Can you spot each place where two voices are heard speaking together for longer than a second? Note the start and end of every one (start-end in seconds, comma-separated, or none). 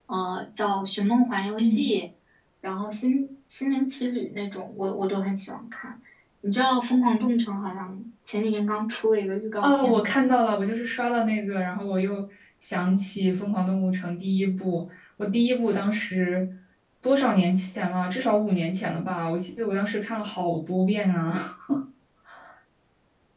none